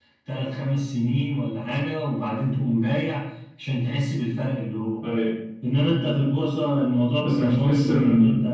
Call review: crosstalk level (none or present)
present